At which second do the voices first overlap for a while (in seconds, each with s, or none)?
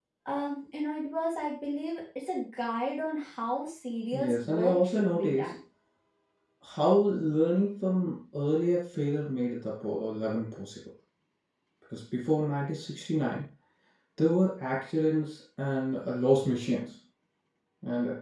4.1 s